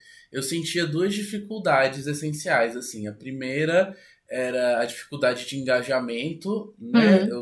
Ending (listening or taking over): listening